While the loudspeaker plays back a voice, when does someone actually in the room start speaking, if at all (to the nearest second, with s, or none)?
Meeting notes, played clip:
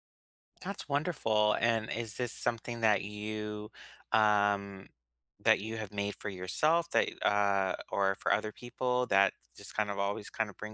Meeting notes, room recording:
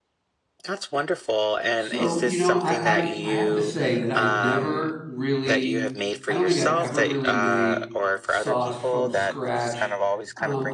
2 s